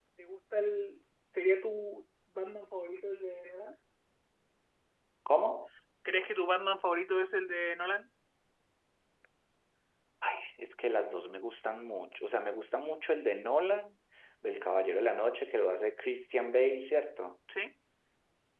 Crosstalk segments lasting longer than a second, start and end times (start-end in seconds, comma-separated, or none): none